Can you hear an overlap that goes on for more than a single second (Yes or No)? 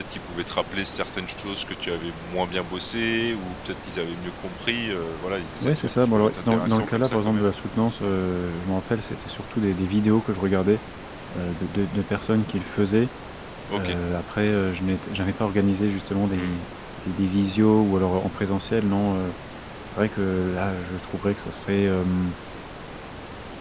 Yes